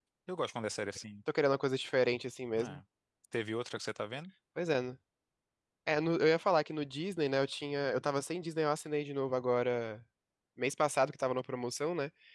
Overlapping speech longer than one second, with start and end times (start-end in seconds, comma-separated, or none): none